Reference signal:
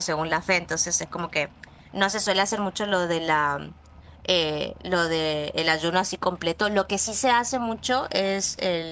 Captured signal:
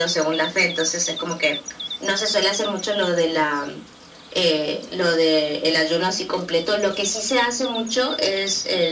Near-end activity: none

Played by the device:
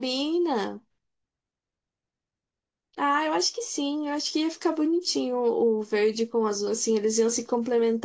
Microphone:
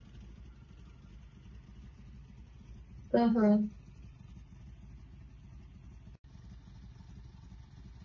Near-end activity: present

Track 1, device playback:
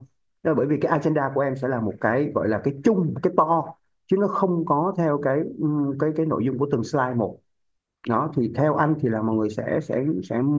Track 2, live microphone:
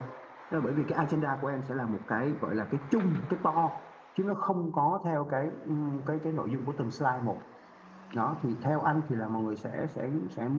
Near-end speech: none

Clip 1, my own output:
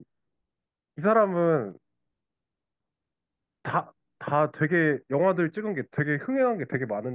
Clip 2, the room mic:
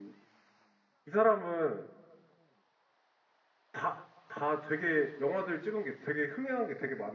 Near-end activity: none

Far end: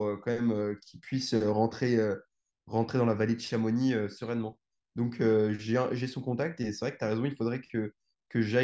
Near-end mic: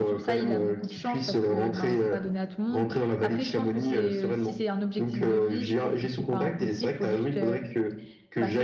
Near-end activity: present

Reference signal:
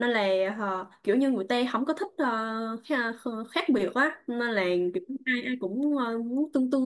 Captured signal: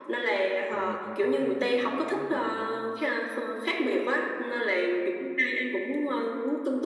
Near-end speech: present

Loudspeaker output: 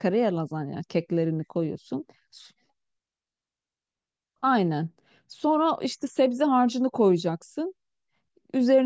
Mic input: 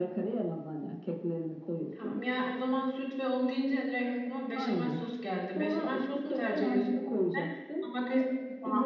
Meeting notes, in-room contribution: present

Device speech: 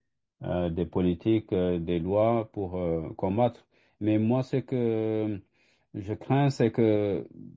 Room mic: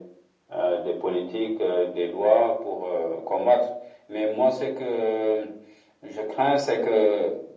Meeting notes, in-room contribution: none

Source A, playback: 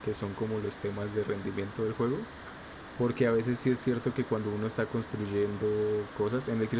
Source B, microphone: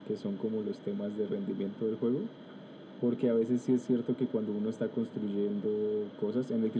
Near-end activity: none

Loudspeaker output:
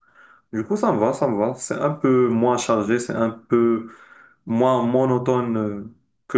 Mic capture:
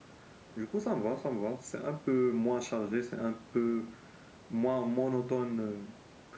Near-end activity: none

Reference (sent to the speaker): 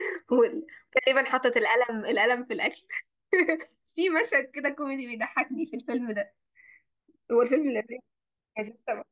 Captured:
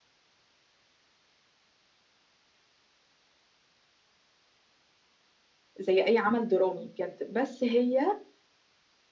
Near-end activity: present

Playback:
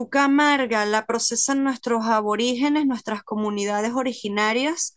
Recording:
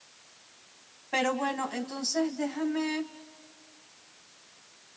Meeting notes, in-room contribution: present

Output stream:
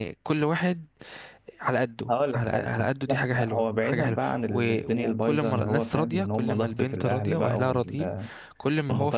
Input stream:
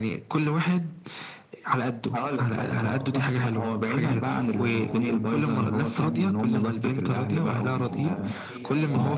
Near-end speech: present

